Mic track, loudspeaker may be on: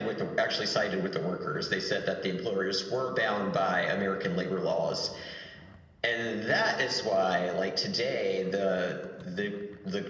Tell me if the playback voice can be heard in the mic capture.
Yes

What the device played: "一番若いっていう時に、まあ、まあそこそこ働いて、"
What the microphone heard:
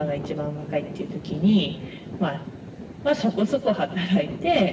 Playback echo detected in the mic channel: Yes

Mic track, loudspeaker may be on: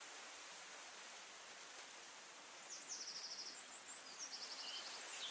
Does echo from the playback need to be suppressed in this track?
No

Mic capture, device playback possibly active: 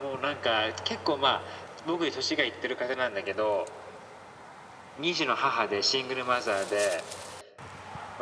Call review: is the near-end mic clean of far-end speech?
No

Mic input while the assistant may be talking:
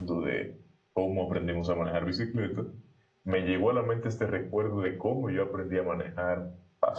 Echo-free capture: Yes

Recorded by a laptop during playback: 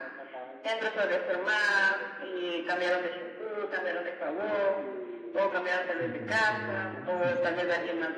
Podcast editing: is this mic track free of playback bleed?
No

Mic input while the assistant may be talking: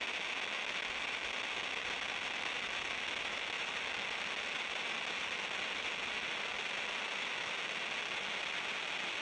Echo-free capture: Yes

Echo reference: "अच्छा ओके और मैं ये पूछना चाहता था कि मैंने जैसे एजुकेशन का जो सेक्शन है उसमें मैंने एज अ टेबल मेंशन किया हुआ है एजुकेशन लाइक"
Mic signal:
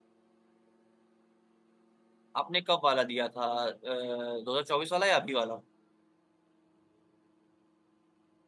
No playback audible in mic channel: Yes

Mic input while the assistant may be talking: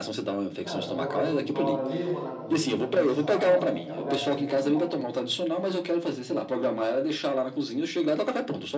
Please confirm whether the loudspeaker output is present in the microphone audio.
Yes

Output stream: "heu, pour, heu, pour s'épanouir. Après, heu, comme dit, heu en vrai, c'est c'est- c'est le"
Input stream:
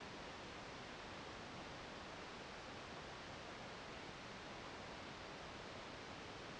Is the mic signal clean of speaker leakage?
Yes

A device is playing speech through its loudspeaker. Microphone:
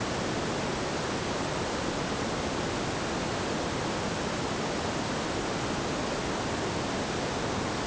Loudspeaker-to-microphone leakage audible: No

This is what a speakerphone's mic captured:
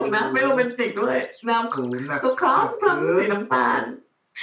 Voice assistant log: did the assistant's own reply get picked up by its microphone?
Yes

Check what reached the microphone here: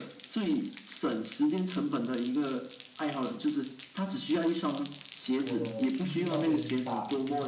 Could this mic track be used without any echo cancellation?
No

